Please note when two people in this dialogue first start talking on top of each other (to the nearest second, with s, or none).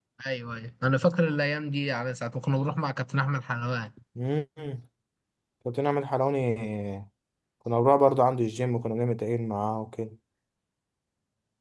none